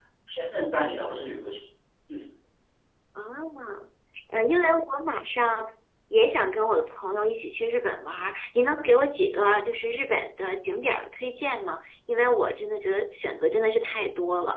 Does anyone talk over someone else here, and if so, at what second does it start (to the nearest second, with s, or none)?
none